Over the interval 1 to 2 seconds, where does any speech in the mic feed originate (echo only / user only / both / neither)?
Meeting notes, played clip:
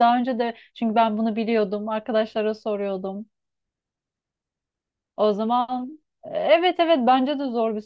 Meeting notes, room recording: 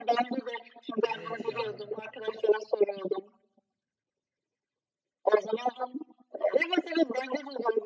both